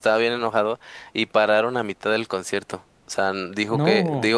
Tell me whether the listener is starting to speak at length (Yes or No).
No